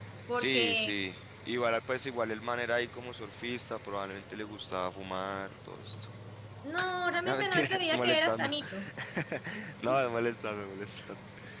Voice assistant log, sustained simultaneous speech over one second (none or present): present